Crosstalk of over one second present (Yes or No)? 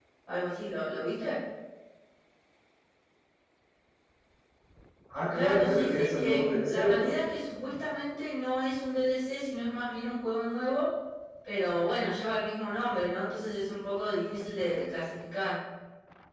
Yes